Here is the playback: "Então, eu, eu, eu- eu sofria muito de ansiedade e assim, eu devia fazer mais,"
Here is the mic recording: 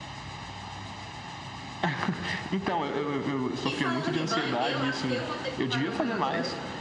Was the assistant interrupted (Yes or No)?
Yes